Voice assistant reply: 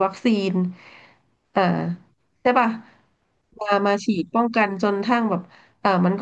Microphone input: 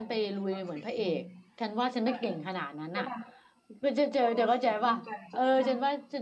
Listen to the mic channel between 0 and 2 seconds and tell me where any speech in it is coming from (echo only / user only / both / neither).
both